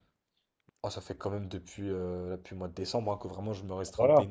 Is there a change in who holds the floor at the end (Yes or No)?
Yes